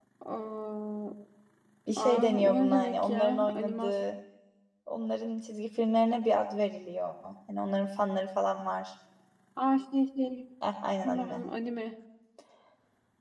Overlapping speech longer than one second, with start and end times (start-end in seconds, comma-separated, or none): 2.0-4.0